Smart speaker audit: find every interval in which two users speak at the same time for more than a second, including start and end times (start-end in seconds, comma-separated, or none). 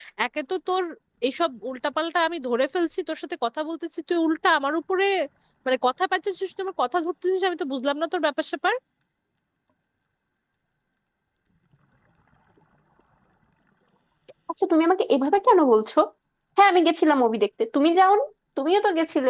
none